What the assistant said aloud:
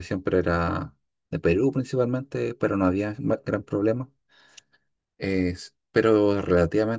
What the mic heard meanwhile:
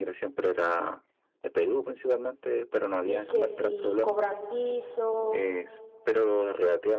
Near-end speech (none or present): present